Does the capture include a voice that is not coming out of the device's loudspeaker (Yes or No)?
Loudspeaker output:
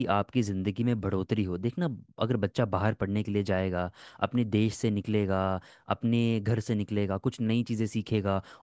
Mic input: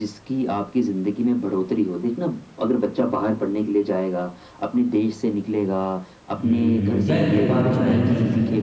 Yes